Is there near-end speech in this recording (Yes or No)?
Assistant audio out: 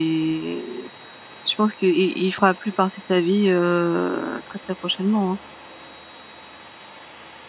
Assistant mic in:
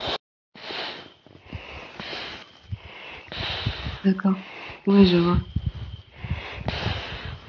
Yes